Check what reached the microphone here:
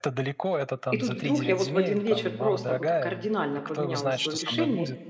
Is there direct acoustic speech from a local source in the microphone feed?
Yes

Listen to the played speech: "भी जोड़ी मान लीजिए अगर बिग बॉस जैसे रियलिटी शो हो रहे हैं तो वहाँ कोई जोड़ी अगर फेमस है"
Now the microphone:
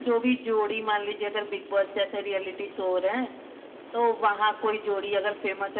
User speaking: No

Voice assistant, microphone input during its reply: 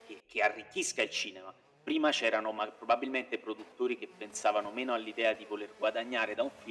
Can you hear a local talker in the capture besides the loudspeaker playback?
No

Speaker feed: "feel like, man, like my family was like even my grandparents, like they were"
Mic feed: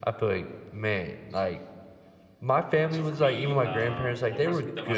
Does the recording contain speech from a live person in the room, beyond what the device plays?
Yes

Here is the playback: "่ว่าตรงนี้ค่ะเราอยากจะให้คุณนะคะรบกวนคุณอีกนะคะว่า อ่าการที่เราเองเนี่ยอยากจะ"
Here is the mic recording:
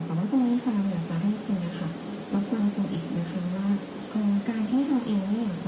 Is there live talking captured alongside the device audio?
No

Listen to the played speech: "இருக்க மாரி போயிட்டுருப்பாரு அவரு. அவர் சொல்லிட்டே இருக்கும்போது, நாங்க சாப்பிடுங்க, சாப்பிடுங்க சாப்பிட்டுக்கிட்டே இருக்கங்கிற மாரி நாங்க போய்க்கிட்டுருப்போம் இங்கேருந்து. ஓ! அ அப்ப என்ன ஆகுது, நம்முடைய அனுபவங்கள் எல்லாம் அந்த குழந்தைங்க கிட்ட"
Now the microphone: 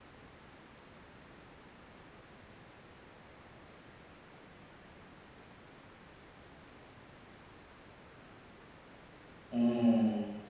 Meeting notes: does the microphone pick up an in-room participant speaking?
Yes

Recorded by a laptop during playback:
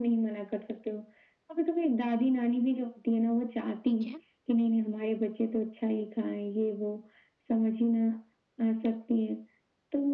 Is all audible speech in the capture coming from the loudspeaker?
No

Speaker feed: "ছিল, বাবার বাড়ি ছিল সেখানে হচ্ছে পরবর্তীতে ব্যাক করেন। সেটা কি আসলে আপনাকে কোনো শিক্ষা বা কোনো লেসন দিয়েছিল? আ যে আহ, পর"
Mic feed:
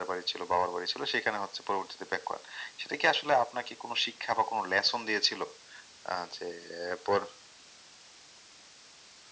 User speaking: No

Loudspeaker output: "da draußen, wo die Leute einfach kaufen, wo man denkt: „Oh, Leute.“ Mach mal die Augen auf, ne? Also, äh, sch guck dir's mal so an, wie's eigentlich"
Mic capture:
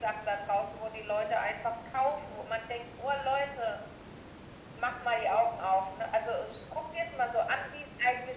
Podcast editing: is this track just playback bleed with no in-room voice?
Yes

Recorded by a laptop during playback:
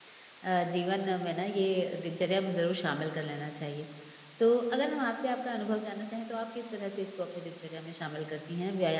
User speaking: Yes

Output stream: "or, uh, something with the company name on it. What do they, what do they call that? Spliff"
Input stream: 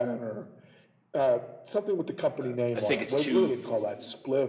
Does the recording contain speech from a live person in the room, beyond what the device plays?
Yes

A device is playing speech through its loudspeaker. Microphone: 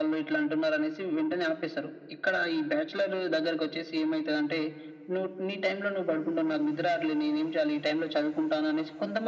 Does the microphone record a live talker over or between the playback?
No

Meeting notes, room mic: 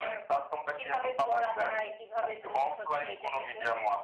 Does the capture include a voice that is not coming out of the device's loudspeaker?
No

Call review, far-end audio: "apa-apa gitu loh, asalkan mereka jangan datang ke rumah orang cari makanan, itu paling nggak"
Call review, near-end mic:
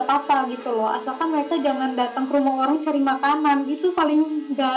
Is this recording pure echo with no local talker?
Yes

